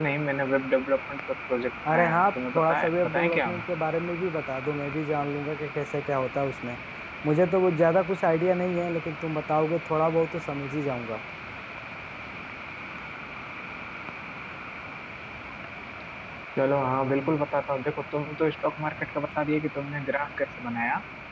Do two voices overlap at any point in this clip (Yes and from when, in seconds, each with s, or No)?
Yes, from 1.8 s